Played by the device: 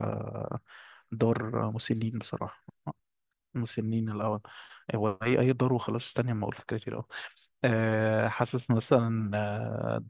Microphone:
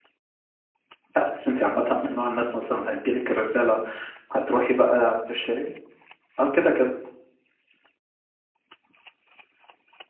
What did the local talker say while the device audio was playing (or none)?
لا بس انت عامه من نوع الناس مثلا هتجيلك الرساله هتروحي بقى تشتري اه كده كده